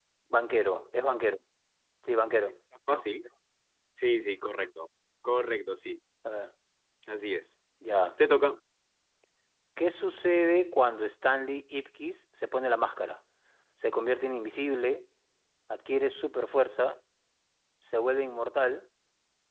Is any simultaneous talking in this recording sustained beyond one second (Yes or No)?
No